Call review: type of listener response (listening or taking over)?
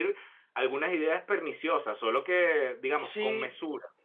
taking over